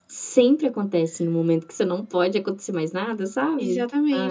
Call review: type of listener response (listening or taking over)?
taking over